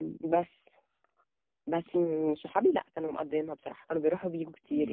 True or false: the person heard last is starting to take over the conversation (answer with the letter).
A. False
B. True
A